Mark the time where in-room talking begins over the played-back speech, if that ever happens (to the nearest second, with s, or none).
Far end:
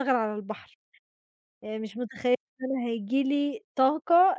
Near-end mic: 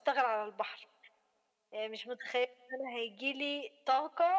none